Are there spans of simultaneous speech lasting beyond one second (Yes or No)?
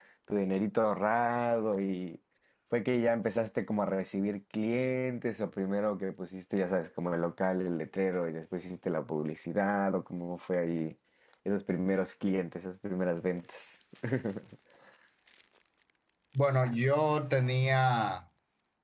No